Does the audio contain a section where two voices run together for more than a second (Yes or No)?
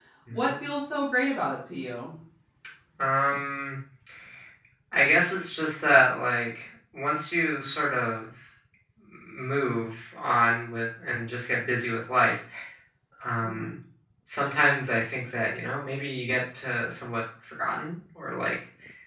No